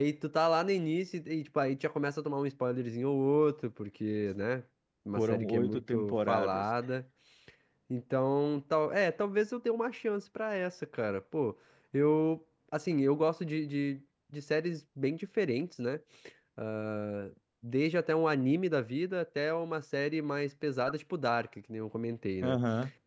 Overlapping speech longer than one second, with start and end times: 5.2-6.6

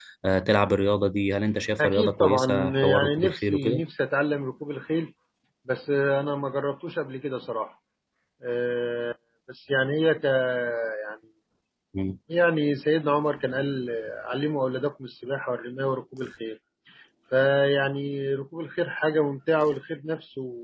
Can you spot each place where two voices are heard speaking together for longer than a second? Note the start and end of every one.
1.8-3.8

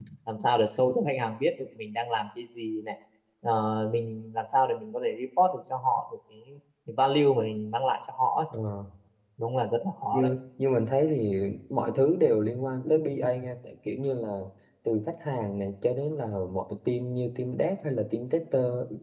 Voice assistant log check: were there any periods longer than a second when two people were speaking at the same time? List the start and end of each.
none

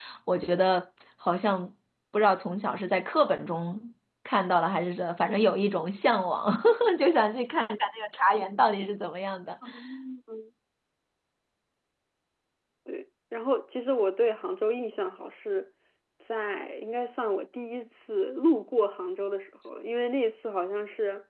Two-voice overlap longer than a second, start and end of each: none

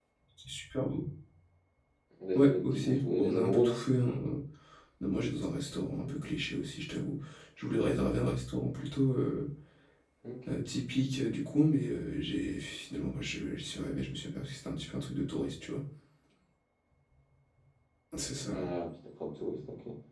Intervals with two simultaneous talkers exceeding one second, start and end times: 2.4-3.8

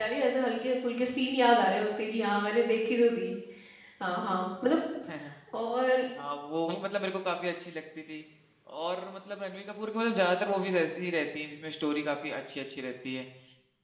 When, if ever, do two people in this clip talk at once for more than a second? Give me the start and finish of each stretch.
none

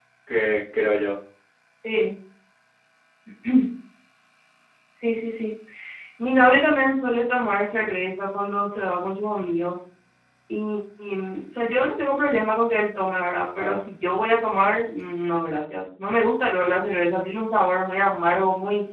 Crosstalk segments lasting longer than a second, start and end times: none

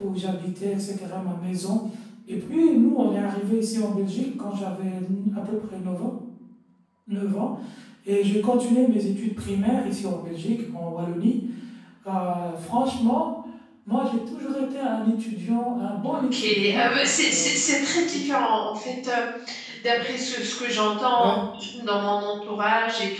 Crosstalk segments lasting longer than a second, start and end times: 16.1-17.6

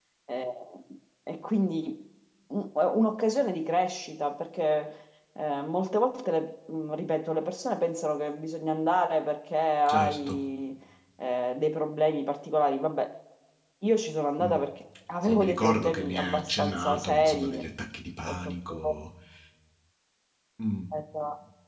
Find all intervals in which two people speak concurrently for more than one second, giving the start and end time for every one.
15.2-17.6

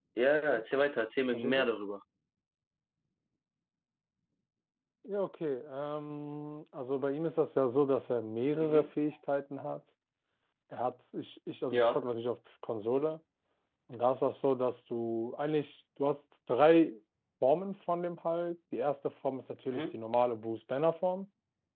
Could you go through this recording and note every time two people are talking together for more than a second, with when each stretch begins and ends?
none

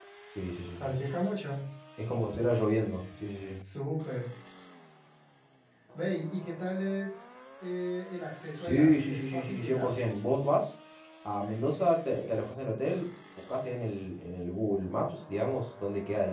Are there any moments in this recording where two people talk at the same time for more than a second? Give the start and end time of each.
8.6-9.9

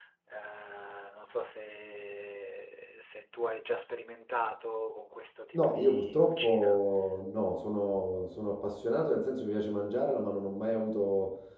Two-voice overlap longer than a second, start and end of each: 5.5-6.8

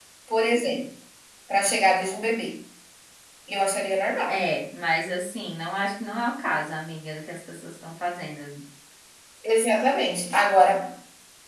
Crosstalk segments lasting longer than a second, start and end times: none

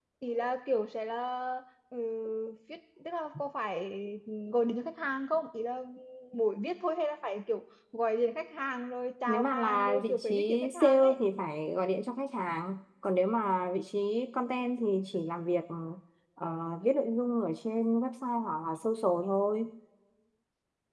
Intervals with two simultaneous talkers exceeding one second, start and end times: 9.3-11.2

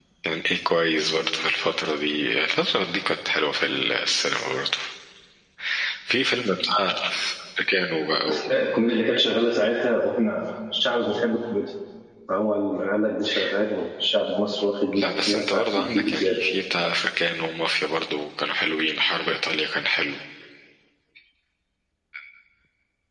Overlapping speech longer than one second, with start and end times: 15.0-16.4

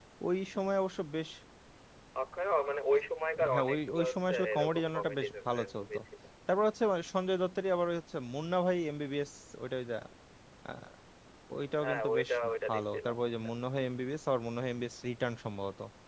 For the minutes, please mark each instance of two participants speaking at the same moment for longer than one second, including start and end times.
3.5-6.0, 11.8-13.2

